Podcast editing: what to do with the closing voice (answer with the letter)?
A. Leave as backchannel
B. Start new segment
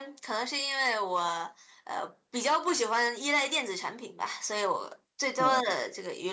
A